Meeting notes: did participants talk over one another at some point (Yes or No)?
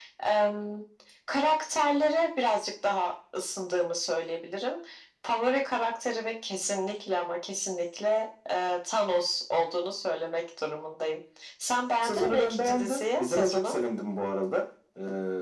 Yes